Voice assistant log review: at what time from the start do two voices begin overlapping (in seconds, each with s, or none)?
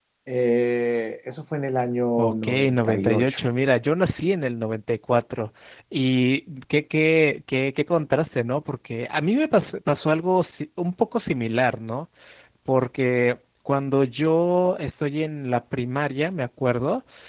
2.2 s